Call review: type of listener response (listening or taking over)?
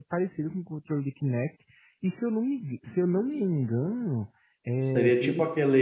taking over